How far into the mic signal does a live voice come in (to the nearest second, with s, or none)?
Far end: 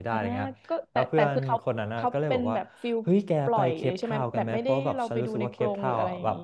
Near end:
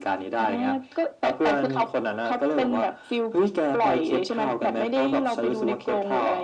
none